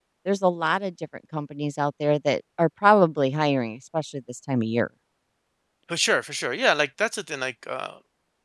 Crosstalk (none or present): none